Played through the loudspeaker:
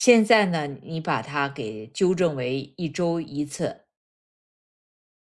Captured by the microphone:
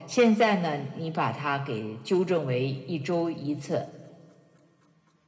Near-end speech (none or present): none